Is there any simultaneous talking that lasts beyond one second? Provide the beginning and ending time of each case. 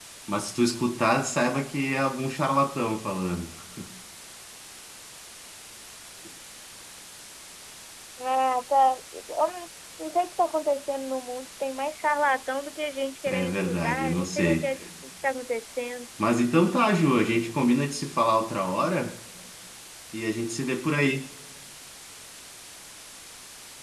13.3-14.7

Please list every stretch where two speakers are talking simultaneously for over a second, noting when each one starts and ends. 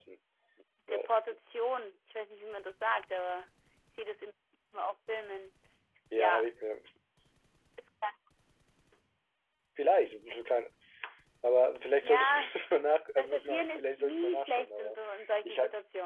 13.2-15.0

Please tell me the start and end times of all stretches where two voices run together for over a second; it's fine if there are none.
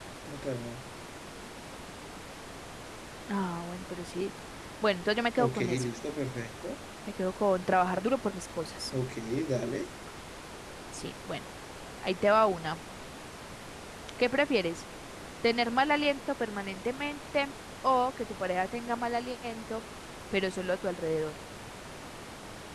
none

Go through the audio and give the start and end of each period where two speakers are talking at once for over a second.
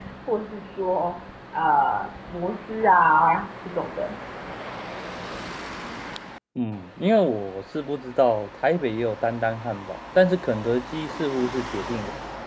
none

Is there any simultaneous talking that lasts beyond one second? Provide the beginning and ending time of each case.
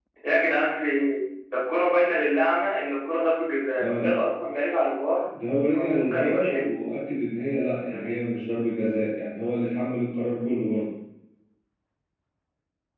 5.7-7.0

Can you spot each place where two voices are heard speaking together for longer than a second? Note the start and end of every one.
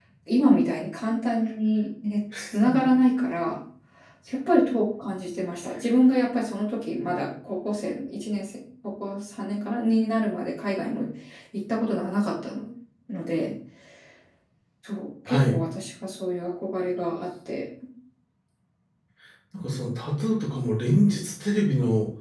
none

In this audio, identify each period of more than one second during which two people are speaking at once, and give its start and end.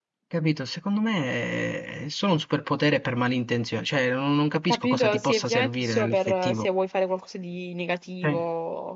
4.7-6.7

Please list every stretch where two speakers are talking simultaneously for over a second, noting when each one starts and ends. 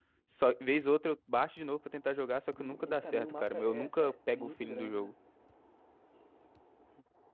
2.6-5.1

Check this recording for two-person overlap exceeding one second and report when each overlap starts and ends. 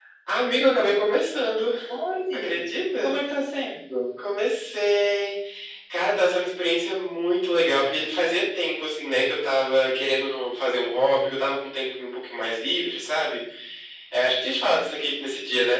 none

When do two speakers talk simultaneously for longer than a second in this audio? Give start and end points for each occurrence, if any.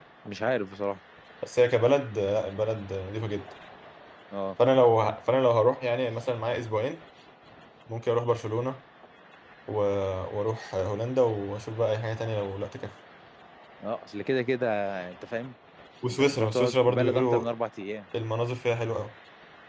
16.1-17.4

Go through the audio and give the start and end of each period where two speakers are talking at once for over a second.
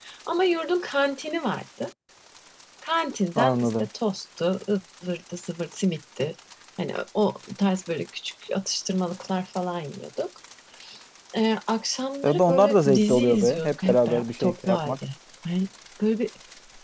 12.2-15.0

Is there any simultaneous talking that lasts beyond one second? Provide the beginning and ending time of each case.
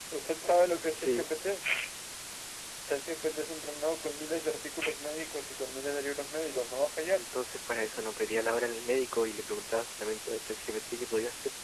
none

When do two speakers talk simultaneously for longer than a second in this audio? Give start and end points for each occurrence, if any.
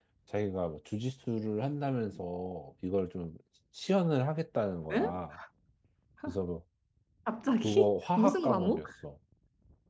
7.6-8.8

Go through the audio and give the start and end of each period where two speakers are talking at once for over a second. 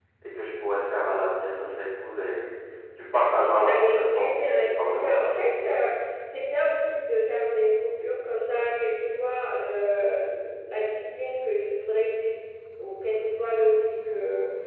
3.7-5.2

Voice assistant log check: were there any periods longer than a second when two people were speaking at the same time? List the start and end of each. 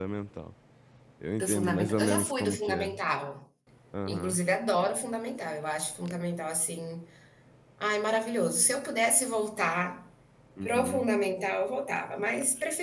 1.4-2.9

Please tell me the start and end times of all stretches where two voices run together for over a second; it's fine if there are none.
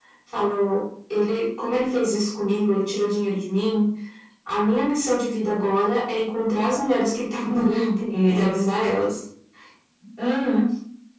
7.4-8.7

